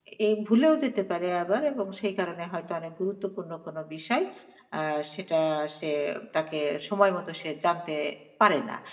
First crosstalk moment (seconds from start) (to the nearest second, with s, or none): none